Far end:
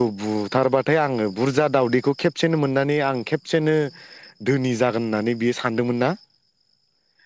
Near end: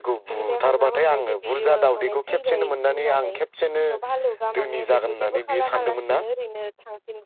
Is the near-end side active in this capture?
Yes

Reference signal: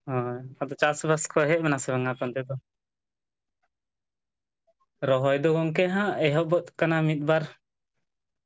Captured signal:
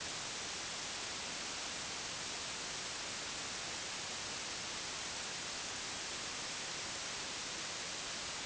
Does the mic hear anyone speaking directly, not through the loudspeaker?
No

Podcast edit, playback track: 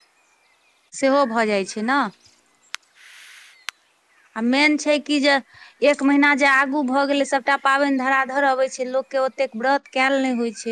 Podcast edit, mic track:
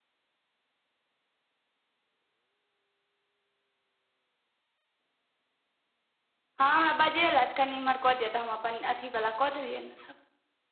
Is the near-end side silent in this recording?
No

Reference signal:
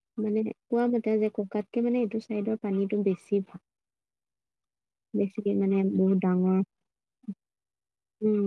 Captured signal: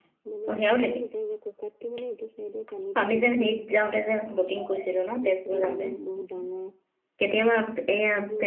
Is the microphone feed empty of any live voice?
No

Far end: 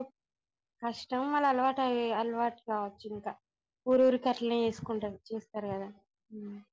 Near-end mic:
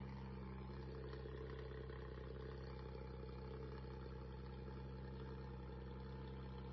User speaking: No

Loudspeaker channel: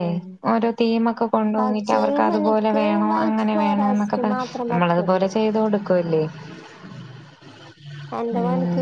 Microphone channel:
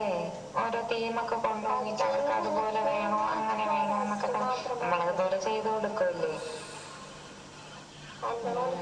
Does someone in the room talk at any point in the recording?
No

